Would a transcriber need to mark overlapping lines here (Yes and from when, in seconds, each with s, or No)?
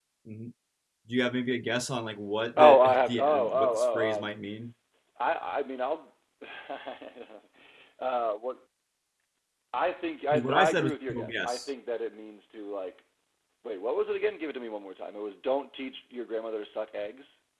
Yes, from 2.6 s